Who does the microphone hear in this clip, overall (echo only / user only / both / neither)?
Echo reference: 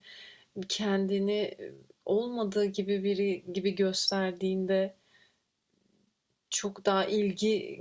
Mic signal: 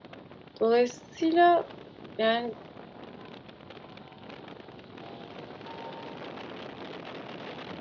user only